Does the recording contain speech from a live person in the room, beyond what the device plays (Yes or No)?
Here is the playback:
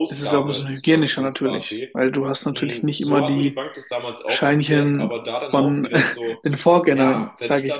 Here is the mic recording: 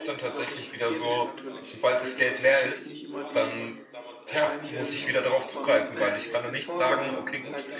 Yes